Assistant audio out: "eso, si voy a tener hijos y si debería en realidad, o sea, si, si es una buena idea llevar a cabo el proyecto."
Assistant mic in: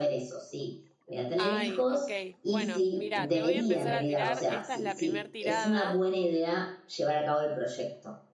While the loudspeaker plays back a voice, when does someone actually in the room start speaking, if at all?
1 s

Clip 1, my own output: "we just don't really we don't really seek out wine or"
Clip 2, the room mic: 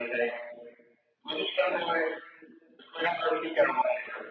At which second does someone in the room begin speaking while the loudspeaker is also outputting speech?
none

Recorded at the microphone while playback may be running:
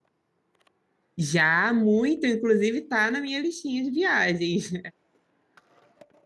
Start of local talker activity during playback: 1 s

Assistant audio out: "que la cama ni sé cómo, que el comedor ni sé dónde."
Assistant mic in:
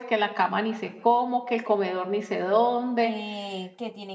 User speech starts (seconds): 3 s

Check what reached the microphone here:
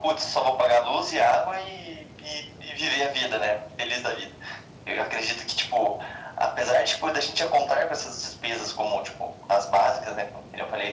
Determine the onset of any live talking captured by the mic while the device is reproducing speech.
none

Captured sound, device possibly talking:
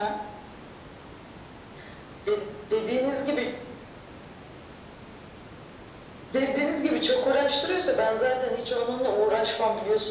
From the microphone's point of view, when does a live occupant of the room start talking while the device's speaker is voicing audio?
none

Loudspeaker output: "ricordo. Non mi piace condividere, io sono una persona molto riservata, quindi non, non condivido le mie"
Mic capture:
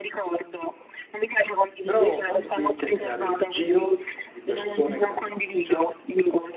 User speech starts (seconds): 2 s

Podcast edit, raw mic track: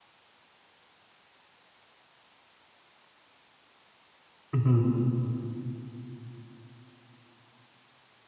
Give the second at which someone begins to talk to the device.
5 s

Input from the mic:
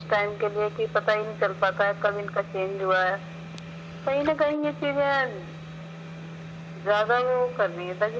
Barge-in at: none

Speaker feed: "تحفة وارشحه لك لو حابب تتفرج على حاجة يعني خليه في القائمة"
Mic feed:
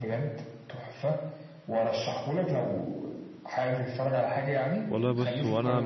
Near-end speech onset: 5 s

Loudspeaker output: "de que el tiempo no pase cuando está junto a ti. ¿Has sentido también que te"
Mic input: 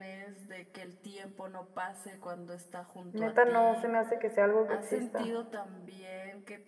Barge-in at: 3 s

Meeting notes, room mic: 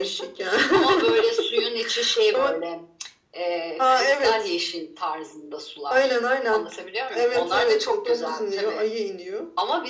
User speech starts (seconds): none

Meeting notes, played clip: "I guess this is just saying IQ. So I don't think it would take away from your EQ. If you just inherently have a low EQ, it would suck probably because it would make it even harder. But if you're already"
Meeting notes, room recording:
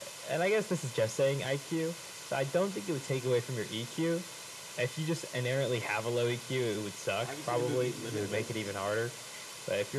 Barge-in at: 7 s

